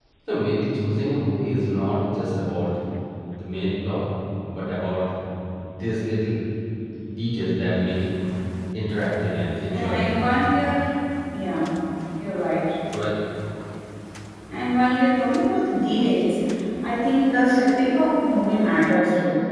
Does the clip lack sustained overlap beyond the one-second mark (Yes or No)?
Yes